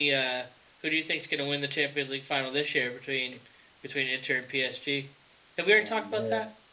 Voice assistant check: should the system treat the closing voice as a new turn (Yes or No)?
Yes